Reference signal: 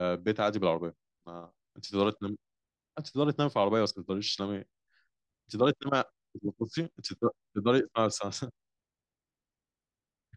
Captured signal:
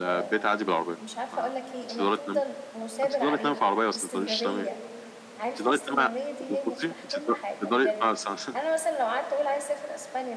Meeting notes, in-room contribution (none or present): present